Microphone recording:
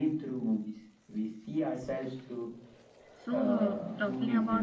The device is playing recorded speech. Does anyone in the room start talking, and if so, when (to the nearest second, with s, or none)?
3 s